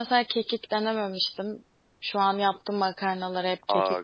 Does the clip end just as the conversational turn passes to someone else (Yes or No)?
Yes